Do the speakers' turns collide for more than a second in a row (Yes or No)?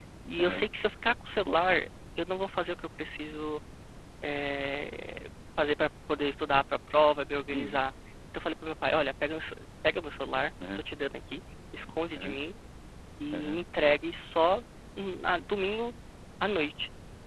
No